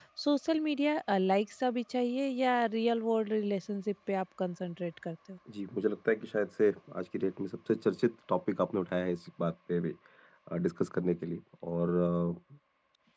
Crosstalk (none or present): none